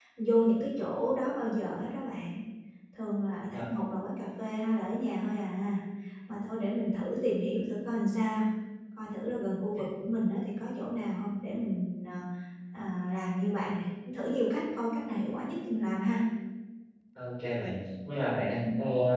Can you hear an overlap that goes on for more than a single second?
No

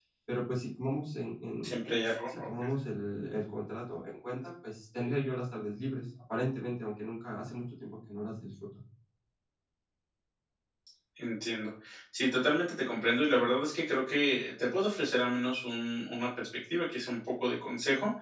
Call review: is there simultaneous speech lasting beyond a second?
No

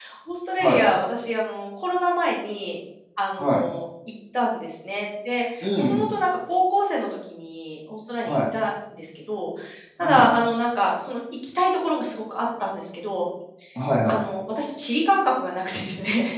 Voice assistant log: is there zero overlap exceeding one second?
Yes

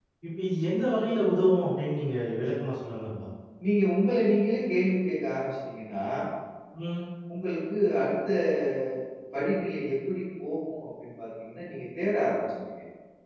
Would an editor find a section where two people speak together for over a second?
No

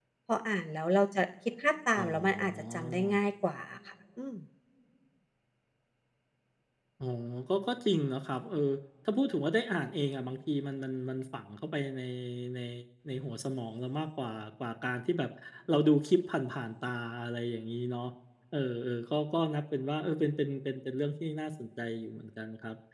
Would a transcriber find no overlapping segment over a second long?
No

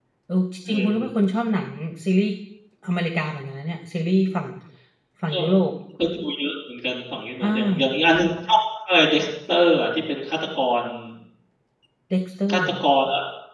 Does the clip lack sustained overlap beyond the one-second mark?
Yes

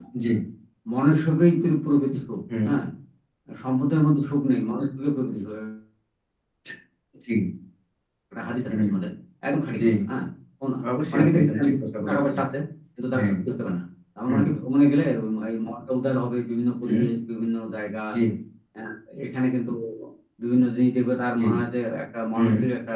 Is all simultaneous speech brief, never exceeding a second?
No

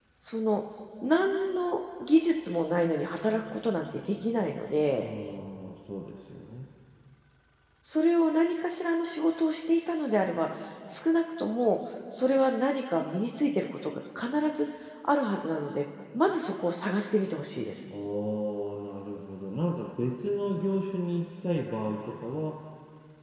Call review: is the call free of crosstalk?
Yes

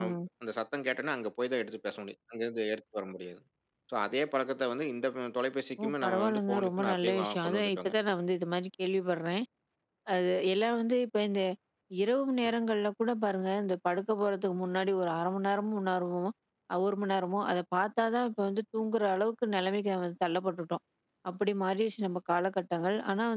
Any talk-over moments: Yes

